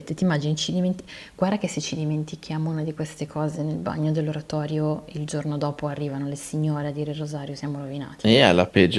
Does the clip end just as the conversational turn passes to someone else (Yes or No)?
Yes